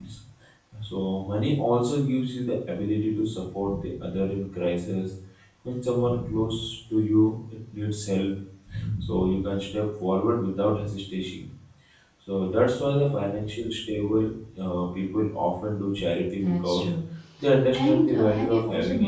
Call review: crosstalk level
present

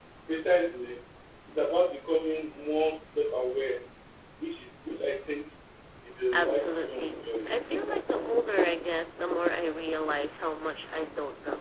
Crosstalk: present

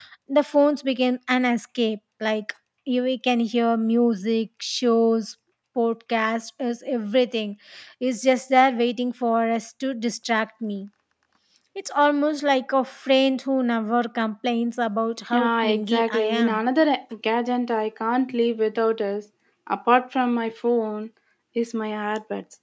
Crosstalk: present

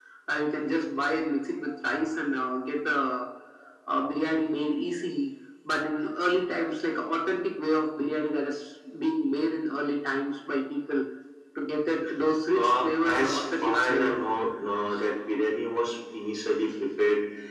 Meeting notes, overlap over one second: present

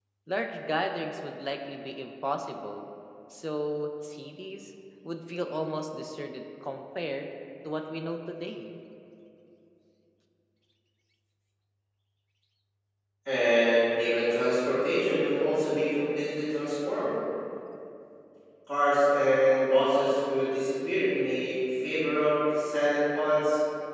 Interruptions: none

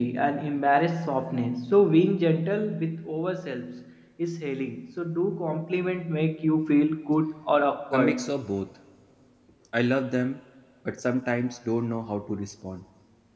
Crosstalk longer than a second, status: none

